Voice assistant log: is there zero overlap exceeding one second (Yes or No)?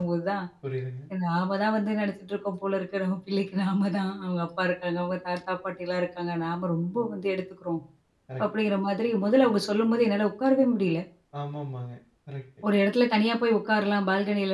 Yes